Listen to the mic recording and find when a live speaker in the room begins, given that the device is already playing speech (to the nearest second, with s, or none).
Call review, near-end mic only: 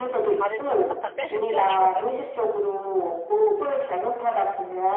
0 s